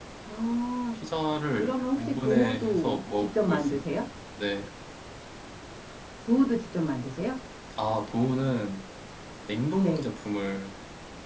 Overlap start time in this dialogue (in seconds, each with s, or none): 1.5 s